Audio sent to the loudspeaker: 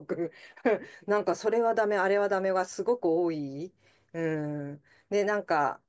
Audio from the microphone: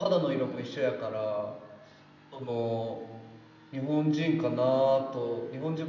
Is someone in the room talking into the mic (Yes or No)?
Yes